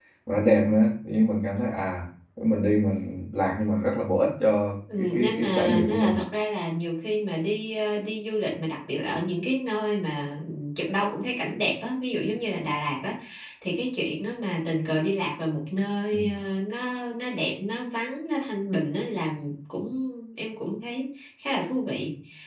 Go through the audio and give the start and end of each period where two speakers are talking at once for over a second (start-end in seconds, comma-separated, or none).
5.0-6.2